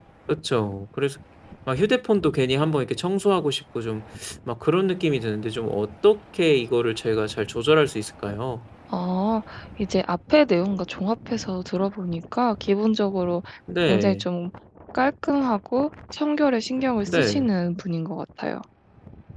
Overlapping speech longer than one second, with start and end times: none

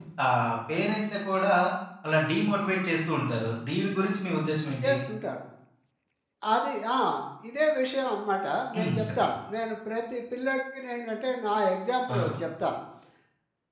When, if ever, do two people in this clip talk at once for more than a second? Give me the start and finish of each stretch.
none

